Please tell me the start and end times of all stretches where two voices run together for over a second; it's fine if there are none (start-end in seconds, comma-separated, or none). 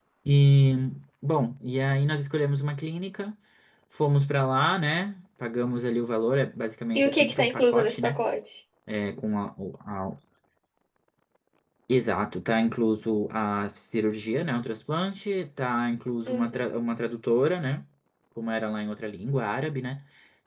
7.0-8.2